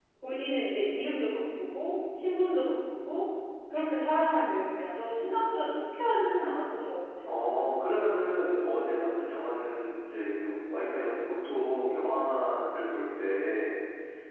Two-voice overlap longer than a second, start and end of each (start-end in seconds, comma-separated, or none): none